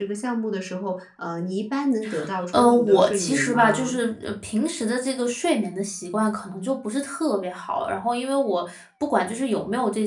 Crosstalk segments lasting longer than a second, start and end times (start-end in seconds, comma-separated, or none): 2.6-3.9